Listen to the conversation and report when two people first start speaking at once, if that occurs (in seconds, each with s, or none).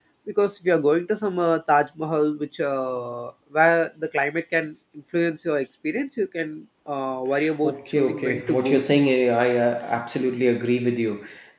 7.6 s